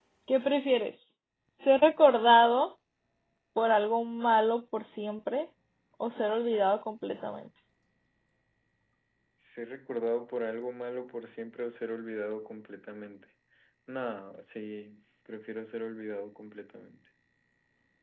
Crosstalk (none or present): none